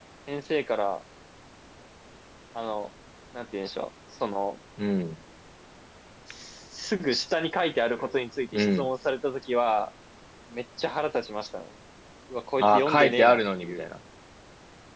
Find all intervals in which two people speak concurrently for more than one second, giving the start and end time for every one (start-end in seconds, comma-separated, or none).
12.6-13.8